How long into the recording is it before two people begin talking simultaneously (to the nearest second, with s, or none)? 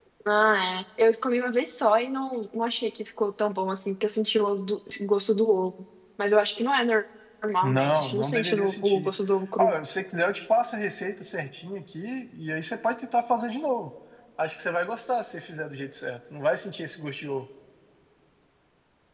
8 s